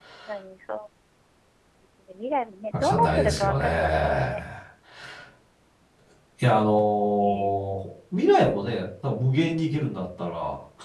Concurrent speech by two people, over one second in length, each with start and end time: 2.7-4.3

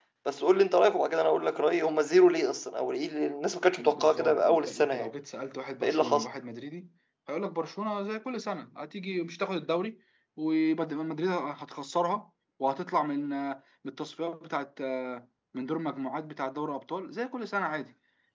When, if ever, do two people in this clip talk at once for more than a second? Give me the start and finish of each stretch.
3.8-5.1

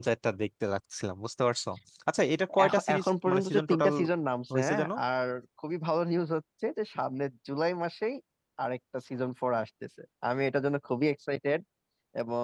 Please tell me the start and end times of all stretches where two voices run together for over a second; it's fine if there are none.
2.6-3.9

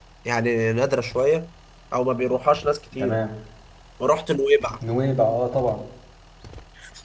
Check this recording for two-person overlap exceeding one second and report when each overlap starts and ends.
none

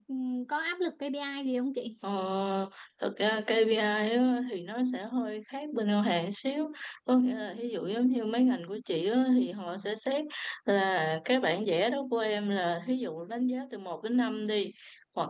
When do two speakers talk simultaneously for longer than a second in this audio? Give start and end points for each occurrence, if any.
none

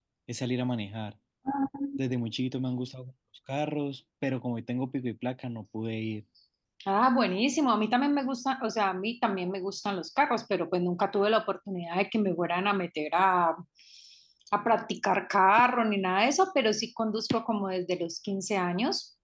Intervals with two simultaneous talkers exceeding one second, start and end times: none

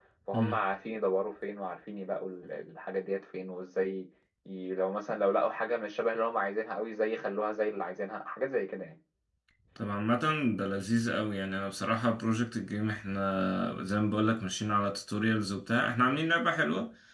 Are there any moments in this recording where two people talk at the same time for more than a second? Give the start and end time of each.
none

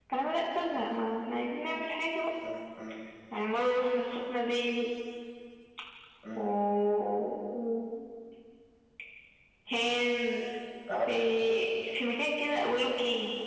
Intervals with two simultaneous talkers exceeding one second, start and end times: none

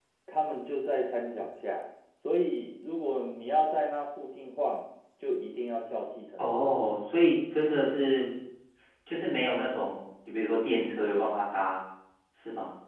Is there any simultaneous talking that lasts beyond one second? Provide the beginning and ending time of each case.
none

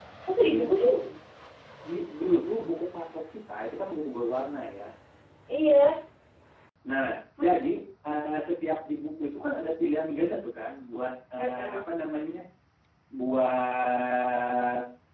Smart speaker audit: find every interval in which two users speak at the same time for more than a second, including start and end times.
none

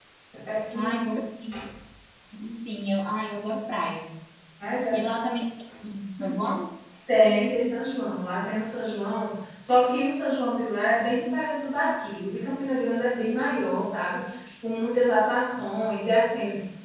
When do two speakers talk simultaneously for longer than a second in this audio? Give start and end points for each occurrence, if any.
none

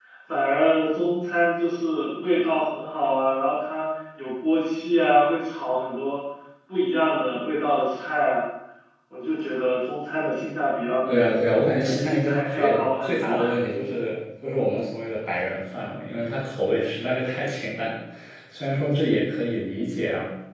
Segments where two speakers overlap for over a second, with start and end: 11.8-13.4

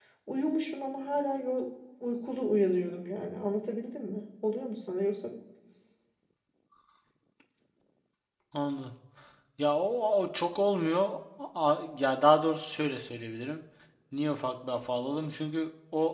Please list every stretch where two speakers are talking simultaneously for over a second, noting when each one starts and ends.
none

